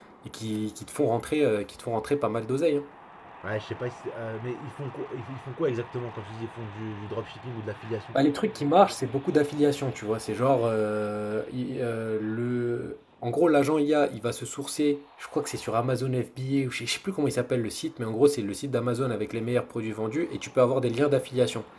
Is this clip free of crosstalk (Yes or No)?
Yes